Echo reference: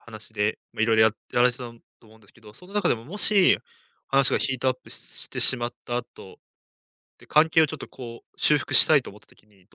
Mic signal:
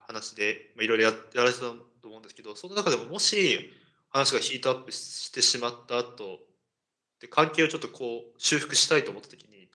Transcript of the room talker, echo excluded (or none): none